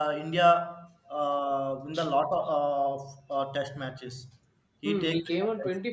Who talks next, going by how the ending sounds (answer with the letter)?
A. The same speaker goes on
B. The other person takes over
B